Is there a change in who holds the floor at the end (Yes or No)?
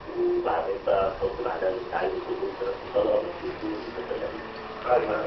Yes